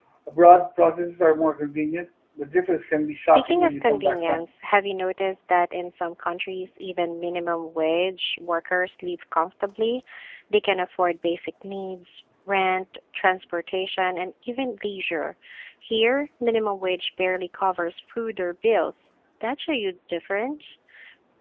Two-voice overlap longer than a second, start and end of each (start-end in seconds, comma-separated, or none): 3.1-4.4